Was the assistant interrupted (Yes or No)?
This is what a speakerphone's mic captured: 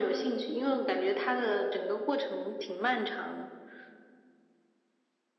No